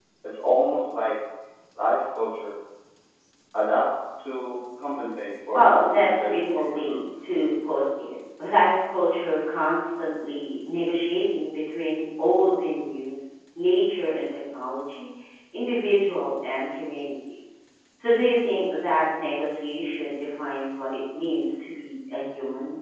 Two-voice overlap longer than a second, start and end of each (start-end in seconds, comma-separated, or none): 5.5-7.0